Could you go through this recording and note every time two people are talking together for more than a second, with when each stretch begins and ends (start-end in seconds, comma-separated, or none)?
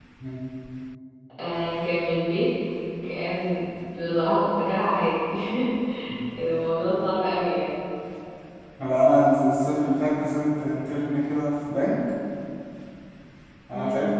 none